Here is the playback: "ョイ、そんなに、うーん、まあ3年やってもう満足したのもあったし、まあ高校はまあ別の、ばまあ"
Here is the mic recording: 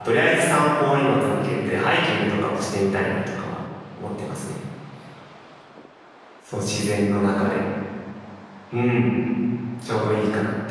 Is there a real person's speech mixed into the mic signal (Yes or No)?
Yes